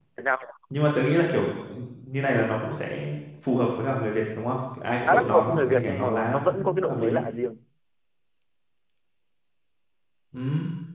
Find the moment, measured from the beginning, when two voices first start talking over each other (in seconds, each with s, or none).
5.1 s